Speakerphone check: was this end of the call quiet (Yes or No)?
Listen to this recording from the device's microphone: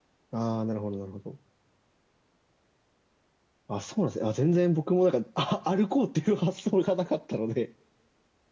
No